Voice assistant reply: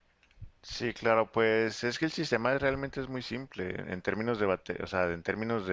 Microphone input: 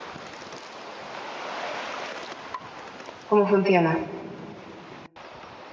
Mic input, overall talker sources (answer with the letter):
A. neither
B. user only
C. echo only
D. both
B